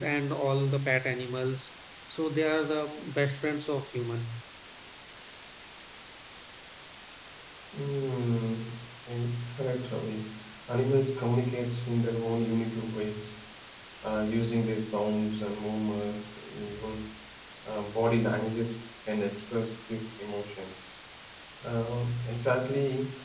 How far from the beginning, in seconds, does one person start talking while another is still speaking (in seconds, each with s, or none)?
none